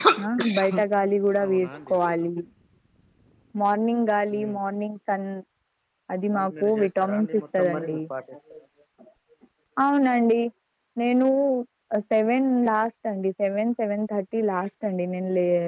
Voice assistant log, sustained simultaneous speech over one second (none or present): present